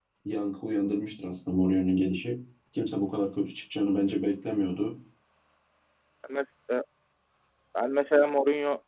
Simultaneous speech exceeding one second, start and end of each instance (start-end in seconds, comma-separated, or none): none